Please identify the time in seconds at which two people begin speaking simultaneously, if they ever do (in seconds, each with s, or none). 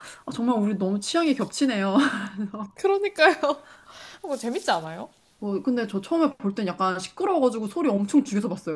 none